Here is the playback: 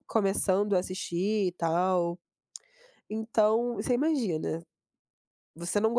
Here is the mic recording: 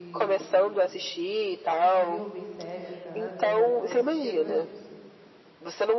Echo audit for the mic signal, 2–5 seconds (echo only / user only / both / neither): both